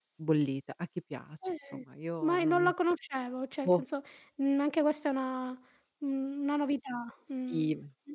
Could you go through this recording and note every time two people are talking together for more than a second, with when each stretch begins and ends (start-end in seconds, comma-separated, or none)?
none